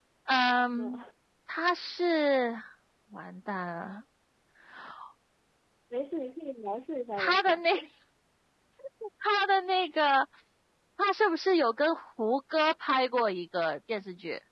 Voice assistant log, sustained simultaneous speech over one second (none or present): none